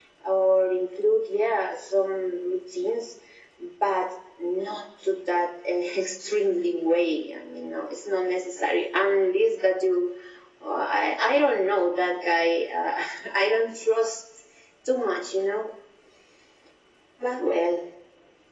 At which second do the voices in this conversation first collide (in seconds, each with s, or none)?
none